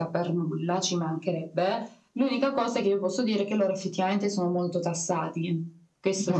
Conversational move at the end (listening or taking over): taking over